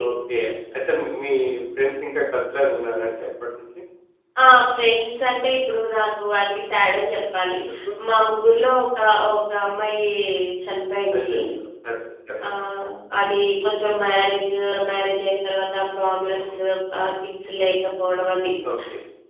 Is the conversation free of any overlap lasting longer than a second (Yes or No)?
Yes